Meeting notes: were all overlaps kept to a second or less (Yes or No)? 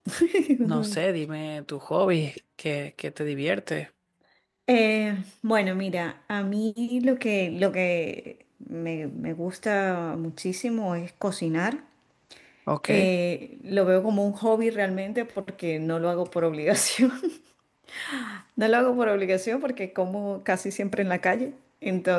Yes